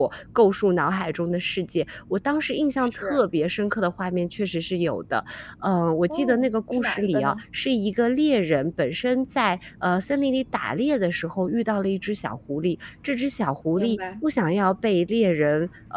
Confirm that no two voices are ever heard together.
No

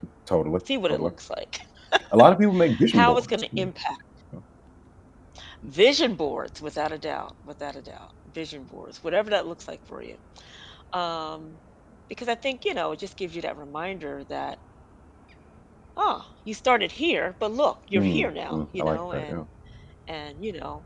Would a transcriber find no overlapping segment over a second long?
No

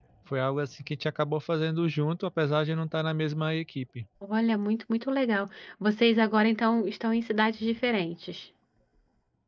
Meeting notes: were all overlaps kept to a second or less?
Yes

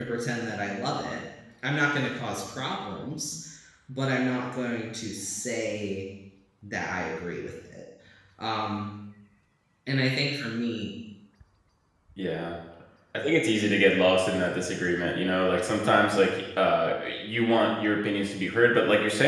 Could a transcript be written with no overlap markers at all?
Yes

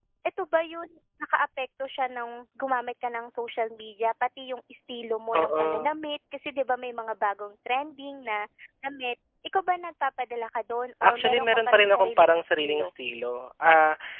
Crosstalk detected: Yes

